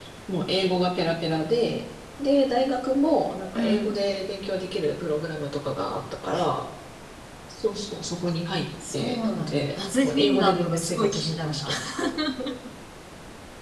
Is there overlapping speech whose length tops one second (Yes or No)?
Yes